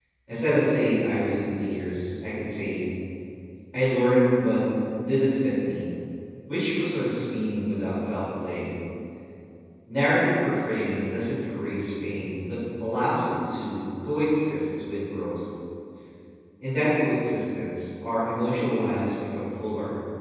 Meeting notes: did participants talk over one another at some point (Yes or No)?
No